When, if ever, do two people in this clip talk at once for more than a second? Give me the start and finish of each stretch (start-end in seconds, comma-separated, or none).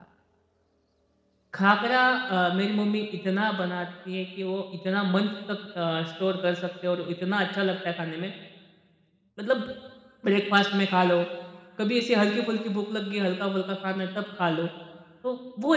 none